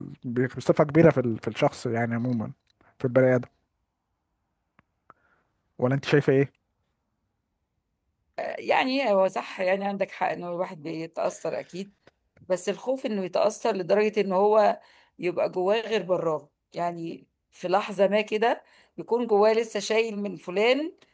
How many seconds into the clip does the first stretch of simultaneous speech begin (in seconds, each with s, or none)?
none